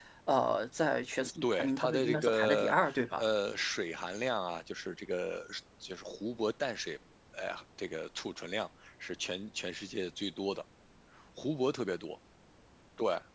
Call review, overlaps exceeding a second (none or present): present